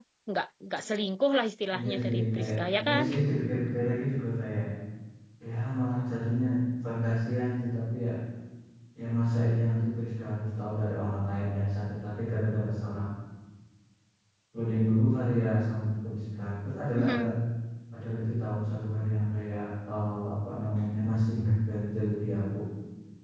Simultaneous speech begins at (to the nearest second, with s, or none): 2 s